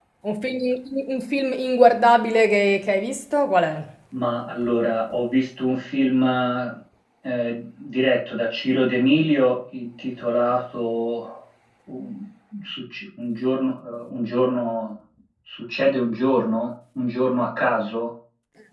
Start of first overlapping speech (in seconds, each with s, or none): none